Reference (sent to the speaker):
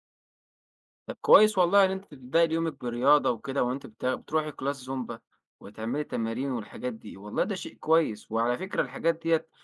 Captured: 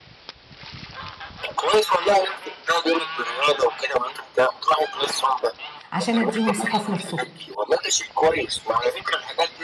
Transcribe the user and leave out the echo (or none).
عشان أدّيهم ثقة في نَفْسهم،